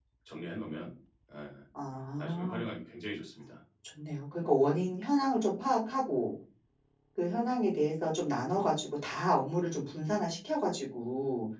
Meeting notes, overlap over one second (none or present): none